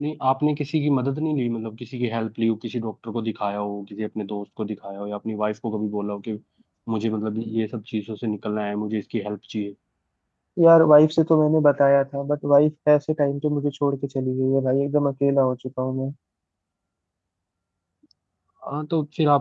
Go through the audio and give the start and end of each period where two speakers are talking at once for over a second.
none

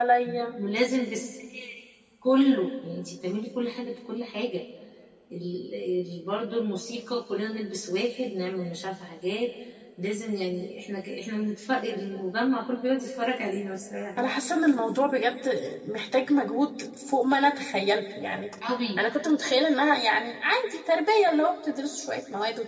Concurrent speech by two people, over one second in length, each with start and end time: none

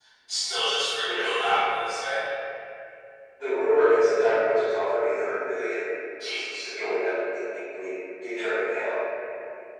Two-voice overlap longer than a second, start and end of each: none

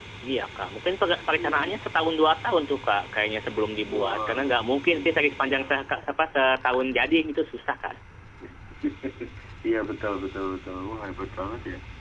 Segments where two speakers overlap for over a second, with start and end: 3.9-5.8

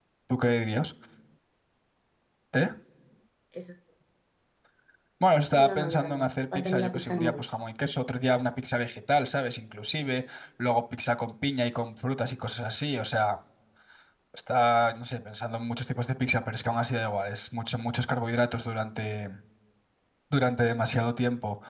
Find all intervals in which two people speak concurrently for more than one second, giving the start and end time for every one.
5.5-7.5

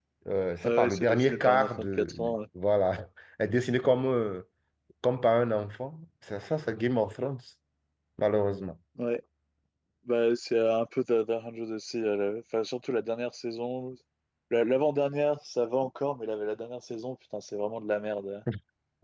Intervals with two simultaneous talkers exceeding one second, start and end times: 0.6-2.3

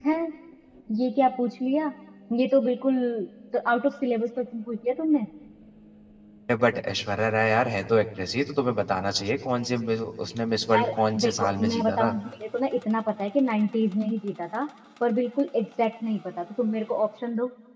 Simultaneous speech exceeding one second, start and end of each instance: 10.7-12.1

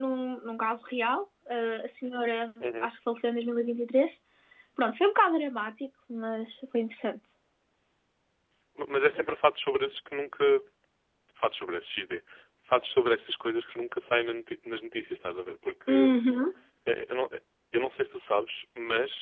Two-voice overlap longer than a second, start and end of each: none

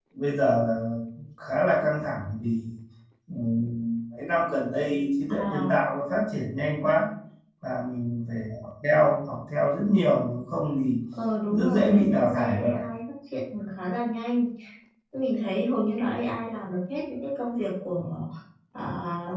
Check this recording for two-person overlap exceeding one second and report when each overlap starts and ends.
11.5-12.8

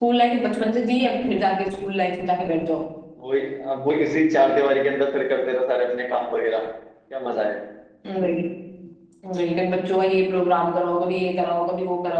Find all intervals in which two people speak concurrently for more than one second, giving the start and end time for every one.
none

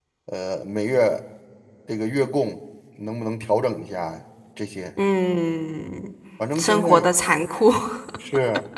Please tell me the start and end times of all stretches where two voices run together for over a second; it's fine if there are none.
none

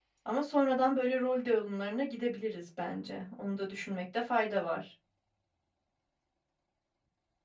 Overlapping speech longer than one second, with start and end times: none

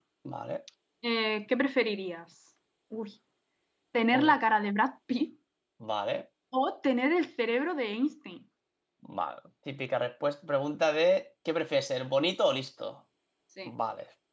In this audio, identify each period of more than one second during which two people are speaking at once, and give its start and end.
none

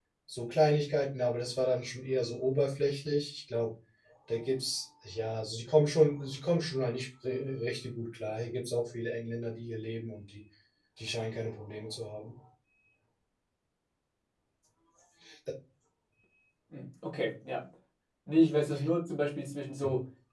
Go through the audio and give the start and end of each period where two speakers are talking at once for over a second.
none

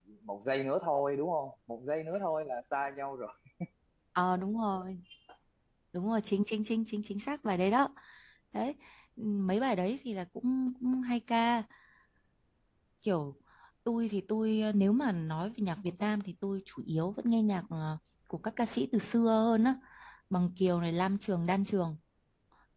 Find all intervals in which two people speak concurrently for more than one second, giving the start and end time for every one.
none

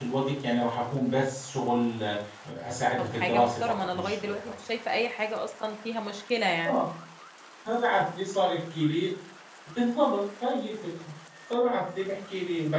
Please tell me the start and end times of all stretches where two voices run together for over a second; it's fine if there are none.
3.0-4.4

